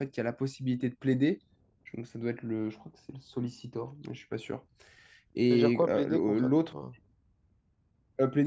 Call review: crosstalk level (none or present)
present